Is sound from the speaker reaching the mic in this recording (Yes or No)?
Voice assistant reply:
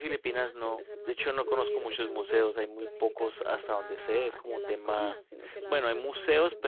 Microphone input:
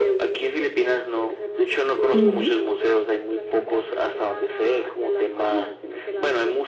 Yes